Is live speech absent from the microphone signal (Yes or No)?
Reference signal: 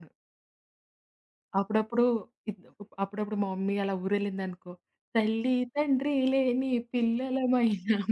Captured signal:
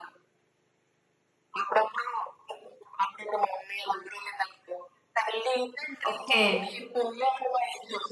No